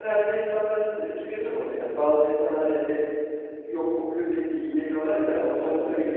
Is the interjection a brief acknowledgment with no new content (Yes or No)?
Yes